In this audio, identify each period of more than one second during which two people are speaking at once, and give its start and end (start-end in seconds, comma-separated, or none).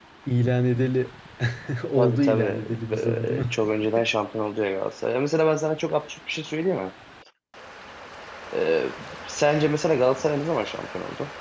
2.0-3.6